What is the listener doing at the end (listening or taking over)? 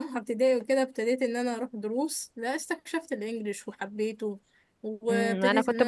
taking over